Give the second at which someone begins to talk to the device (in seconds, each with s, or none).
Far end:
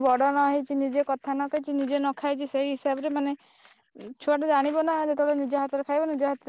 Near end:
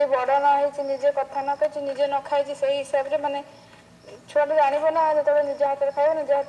none